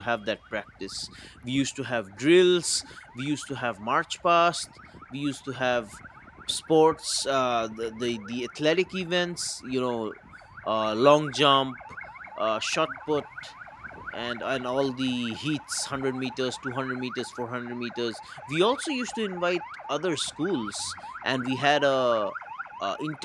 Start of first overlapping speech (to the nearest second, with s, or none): none